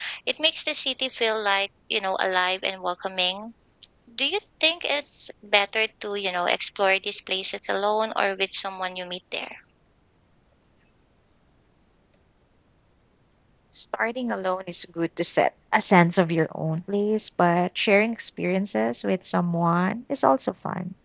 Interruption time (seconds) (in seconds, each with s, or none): none